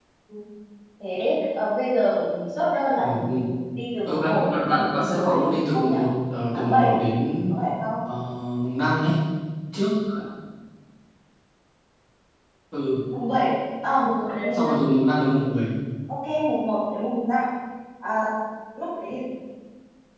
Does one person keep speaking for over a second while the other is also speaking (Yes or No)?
Yes